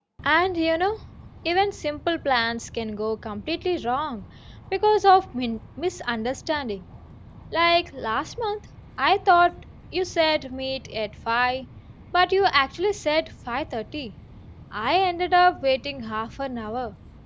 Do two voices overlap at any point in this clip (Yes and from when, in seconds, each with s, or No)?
No